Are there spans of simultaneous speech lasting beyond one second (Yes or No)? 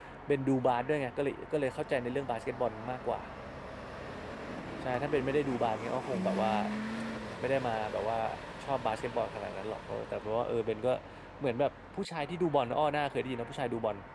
No